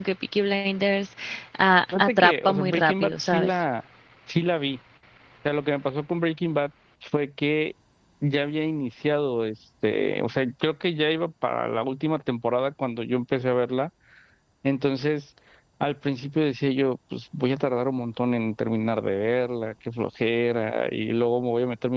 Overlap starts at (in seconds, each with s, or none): 1.9 s